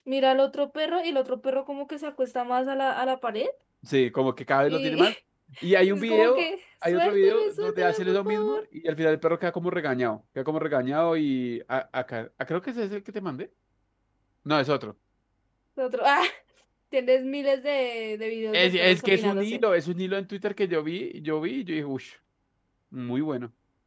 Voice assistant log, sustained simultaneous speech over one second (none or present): present